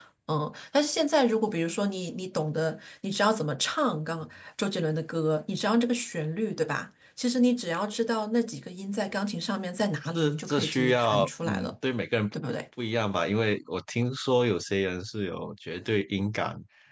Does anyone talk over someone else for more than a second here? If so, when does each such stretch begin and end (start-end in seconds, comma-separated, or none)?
10.1-11.8